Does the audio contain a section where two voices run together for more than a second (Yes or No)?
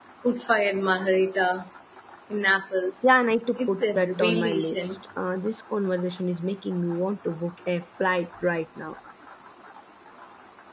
Yes